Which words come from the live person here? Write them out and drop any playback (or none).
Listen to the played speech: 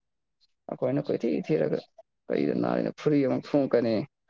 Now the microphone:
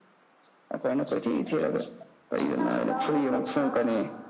ꯑ ꯍꯥ ꯆꯥꯎꯗꯔꯤ ꯊꯥ